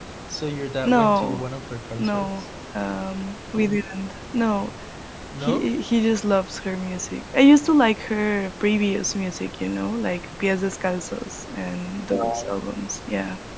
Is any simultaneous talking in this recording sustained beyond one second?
No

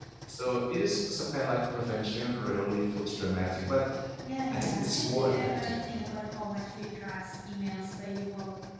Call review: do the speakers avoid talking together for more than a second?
No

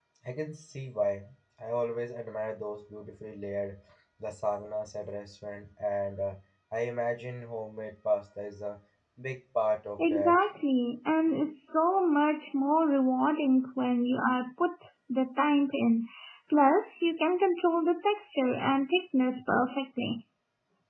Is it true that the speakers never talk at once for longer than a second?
Yes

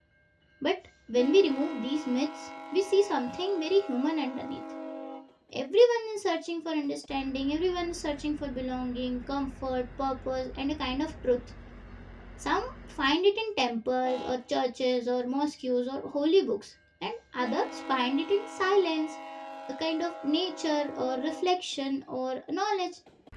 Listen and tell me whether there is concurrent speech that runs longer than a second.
No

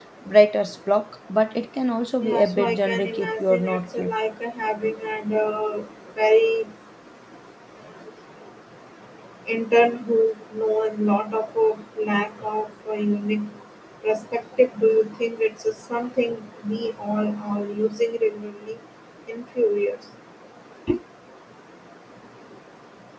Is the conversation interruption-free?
No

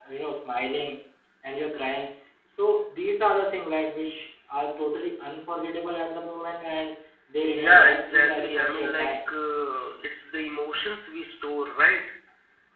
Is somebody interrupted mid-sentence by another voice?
Yes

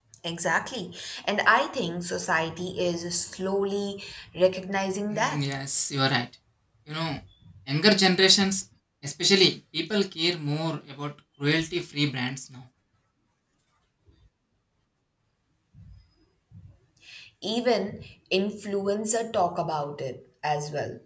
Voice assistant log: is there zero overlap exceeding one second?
Yes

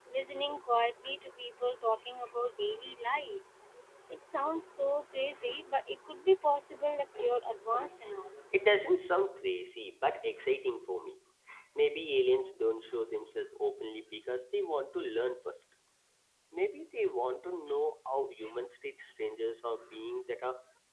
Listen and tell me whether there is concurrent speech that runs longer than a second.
No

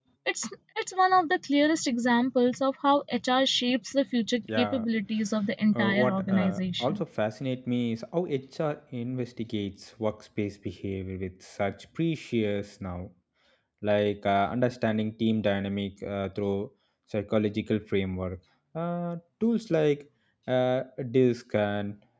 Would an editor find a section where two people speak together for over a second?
Yes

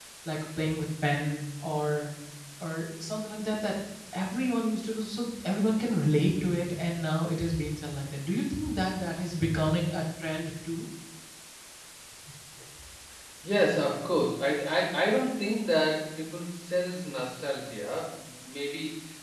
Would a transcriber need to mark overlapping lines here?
No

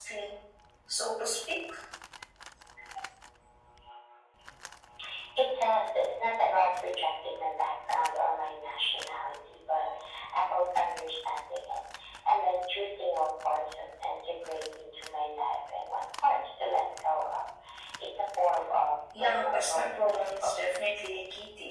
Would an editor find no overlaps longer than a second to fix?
No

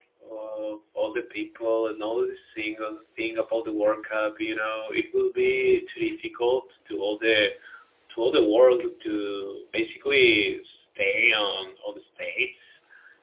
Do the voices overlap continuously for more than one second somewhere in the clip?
No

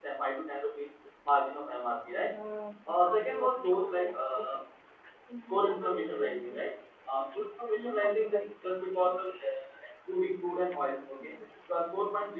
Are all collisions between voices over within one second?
No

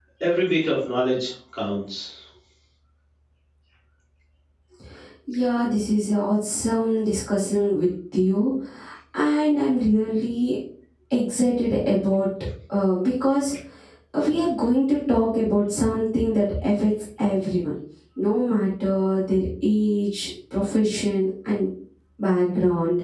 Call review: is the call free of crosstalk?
Yes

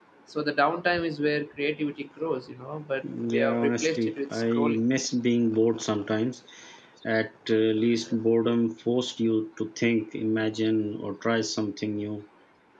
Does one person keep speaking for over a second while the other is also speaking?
Yes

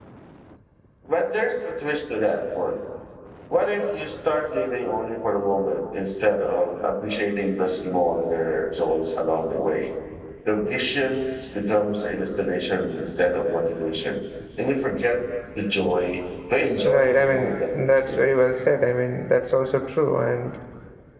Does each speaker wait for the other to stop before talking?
No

